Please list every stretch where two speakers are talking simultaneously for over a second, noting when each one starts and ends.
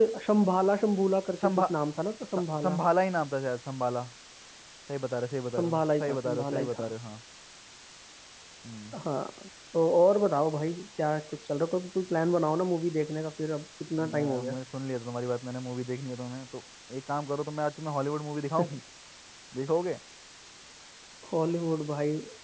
5.6-6.9

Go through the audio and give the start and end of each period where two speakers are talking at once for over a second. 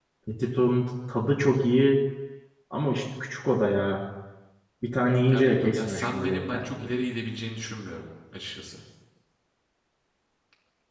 5.3-6.8

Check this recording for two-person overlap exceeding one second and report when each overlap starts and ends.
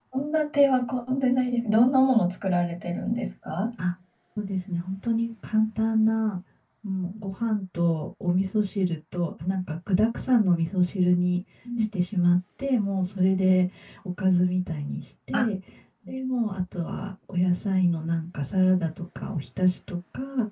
none

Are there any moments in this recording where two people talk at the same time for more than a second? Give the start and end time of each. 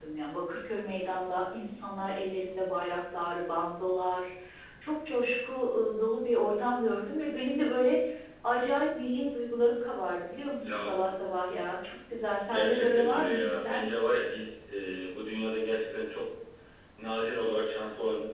12.5-13.9

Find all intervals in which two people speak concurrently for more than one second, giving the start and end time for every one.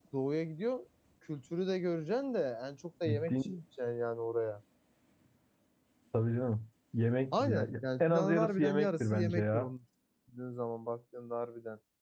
7.3-9.7

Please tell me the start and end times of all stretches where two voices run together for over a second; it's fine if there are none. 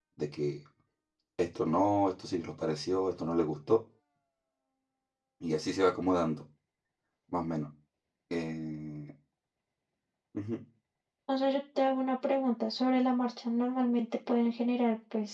none

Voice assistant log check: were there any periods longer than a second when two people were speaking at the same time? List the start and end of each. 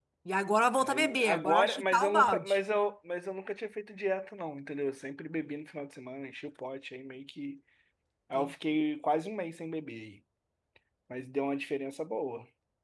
0.8-2.6

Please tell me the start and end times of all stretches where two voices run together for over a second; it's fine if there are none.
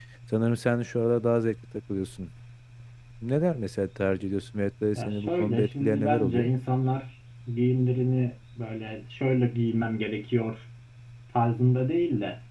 5.0-6.5

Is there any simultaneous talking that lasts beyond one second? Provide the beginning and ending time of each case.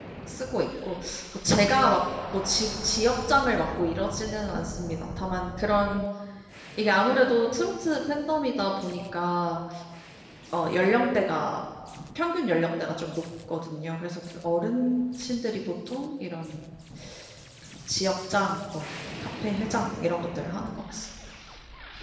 none

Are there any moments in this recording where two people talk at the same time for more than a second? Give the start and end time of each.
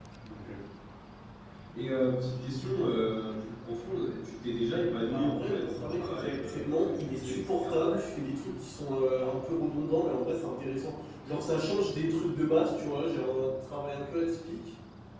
5.1-7.8

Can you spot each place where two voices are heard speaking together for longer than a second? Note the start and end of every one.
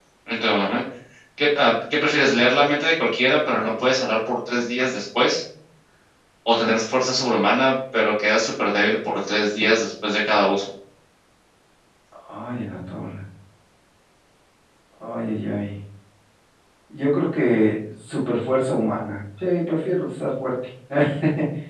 none

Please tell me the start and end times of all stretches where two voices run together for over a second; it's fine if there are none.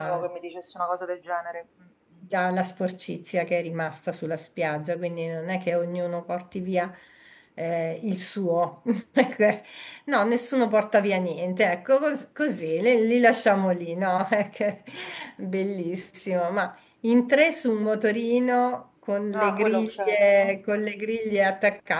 19.3-20.6

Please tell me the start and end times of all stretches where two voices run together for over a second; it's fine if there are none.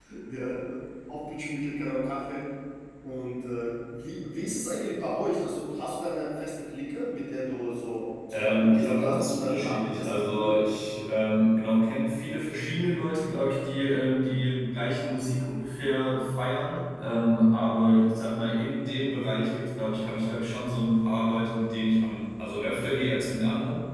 8.3-10.6

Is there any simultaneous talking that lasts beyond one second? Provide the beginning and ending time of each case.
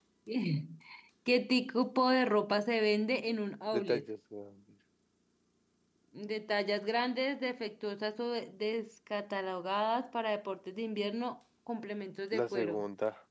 none

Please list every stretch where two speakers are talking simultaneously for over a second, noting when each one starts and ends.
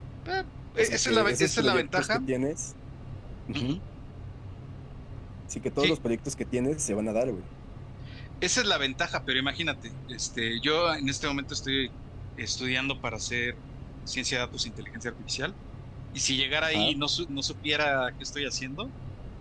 0.9-2.2

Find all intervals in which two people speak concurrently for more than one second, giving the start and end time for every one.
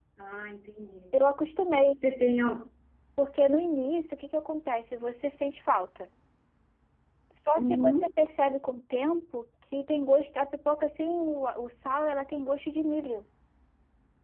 none

